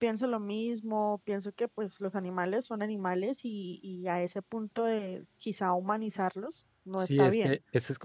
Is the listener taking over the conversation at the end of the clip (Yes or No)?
Yes